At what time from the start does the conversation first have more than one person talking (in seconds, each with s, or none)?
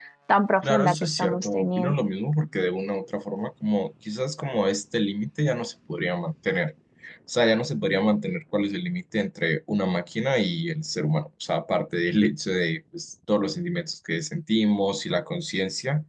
0.6 s